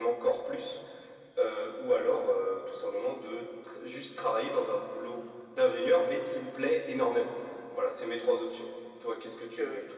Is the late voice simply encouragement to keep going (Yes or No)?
No